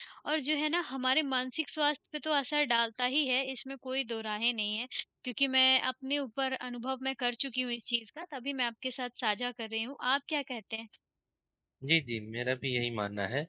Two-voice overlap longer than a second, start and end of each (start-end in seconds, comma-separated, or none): none